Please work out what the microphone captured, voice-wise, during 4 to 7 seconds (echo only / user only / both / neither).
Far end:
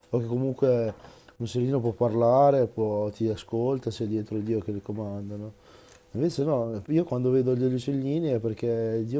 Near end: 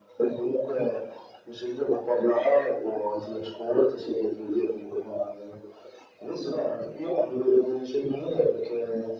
echo only